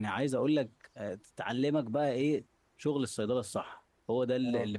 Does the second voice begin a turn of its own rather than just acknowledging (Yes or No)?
No